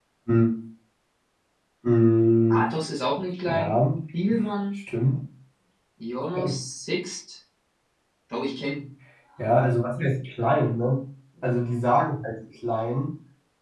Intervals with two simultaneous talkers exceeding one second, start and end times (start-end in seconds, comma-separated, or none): none